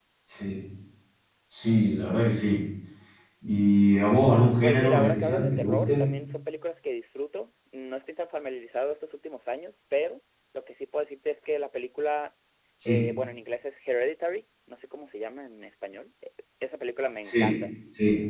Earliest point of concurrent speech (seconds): 4.6 s

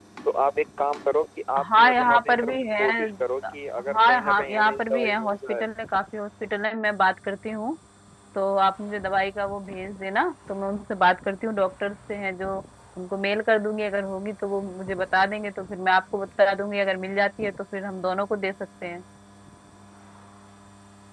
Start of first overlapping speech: 1.6 s

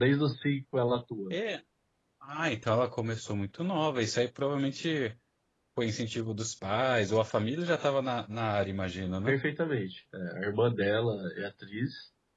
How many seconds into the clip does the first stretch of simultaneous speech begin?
none

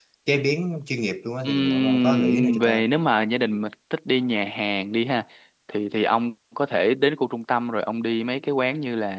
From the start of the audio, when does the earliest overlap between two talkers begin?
1.4 s

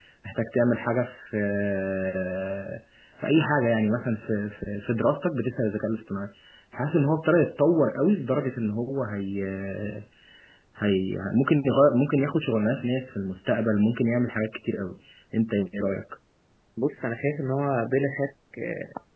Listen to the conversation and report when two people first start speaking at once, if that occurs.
none

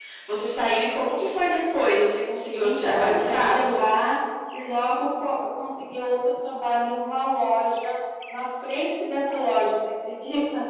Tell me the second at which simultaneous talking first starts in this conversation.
2.6 s

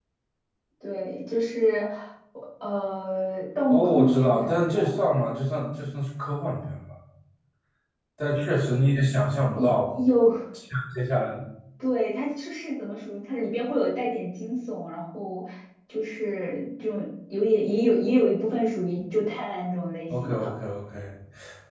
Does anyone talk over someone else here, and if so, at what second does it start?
3.7 s

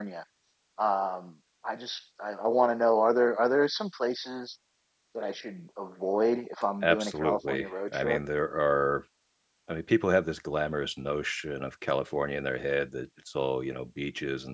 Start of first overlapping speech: 6.8 s

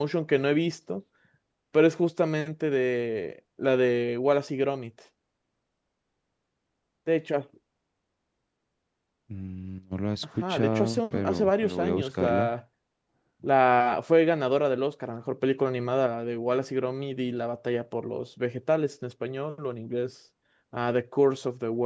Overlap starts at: 10.4 s

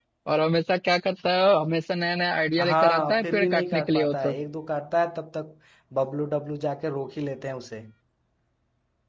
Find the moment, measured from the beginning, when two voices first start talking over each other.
2.6 s

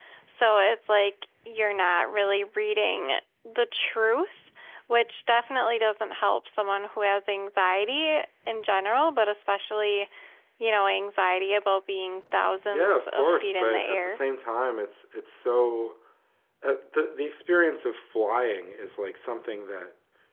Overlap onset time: 12.7 s

